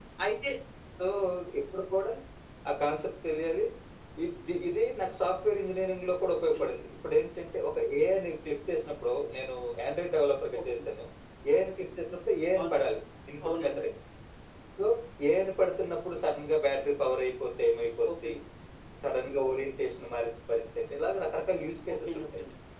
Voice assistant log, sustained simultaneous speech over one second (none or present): none